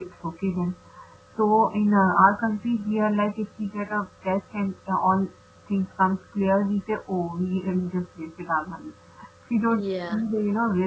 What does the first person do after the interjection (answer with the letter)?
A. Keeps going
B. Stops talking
A